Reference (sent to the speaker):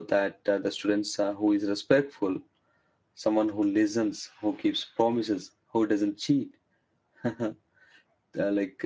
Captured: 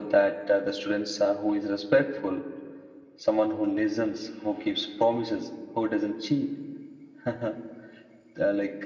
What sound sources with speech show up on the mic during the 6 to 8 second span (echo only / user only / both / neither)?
echo only